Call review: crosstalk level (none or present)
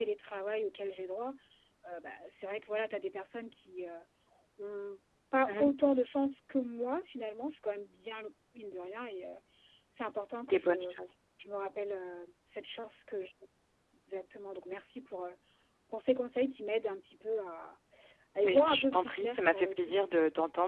present